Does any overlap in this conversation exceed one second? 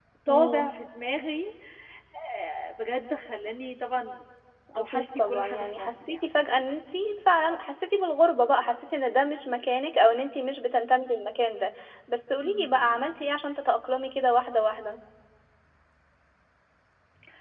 Yes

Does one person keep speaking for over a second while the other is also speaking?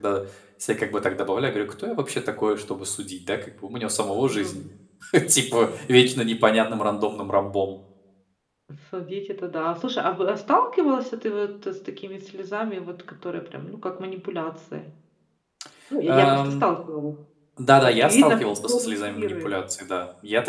Yes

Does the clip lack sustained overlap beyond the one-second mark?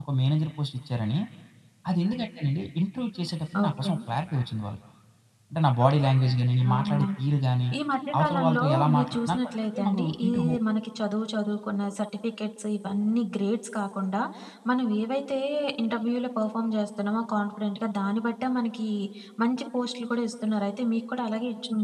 No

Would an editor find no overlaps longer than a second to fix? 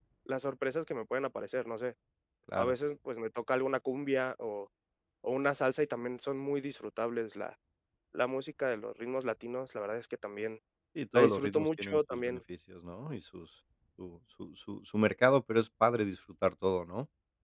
No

